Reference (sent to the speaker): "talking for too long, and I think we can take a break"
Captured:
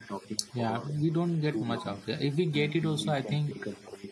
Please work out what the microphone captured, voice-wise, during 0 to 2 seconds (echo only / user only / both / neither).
both